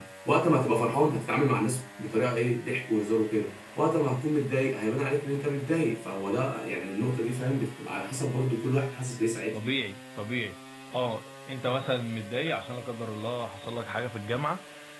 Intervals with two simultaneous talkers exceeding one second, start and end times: none

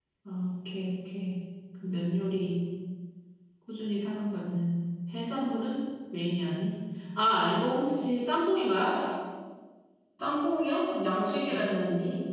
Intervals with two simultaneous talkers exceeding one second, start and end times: none

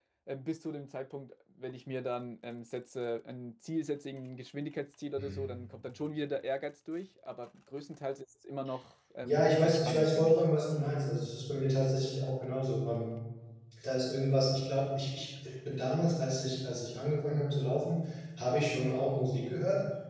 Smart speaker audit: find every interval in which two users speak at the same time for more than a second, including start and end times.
9.2-10.4

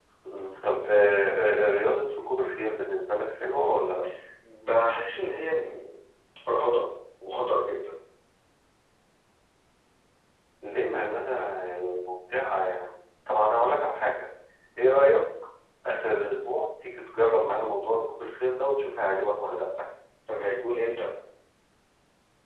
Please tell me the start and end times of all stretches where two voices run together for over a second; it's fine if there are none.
none

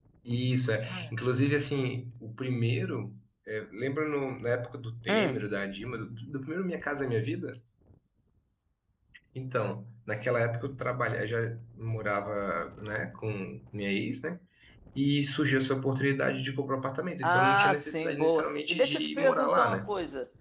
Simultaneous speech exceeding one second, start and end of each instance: 17.2-19.9

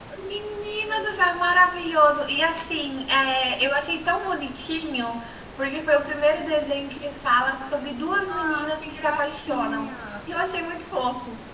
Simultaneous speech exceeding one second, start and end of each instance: 8.3-10.0

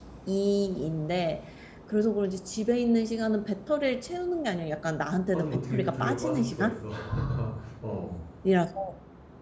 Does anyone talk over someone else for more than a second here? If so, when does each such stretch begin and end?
5.3-6.8

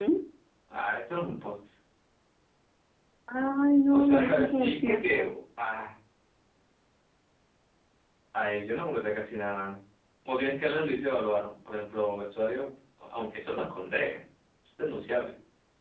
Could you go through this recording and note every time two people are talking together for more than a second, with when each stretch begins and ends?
3.9-5.3

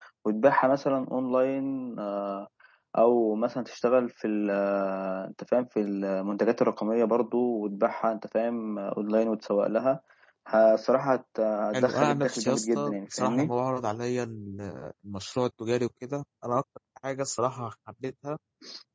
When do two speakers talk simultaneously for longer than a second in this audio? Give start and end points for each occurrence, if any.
11.7-13.5

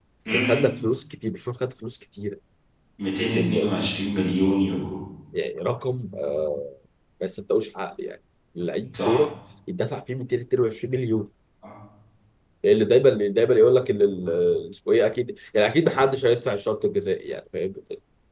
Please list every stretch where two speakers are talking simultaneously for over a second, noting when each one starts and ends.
none

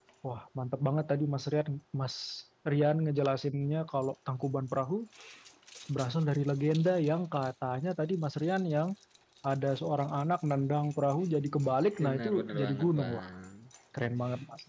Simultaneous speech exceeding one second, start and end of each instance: 12.0-13.3

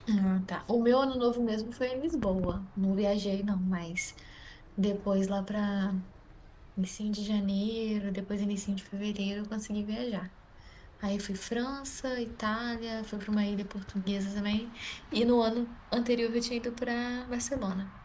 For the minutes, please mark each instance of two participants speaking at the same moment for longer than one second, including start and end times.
none

